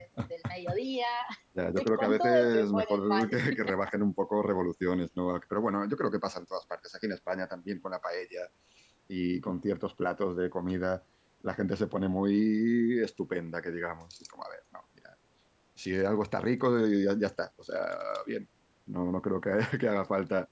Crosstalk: present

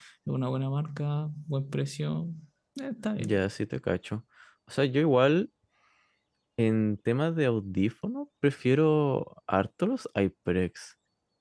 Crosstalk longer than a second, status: none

